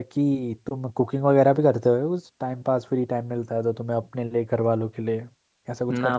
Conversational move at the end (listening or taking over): taking over